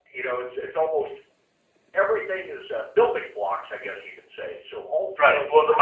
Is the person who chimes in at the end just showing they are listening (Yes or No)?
No